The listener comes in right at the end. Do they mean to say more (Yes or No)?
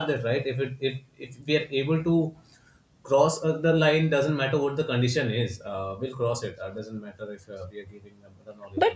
Yes